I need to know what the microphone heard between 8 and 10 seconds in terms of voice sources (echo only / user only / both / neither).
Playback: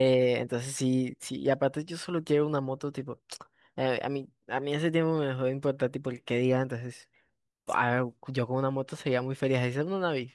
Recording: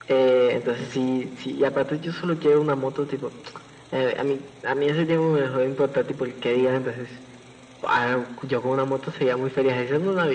echo only